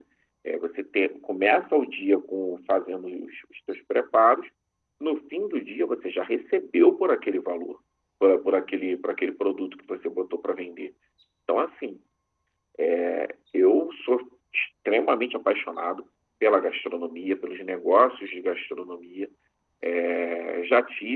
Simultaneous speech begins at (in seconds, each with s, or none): none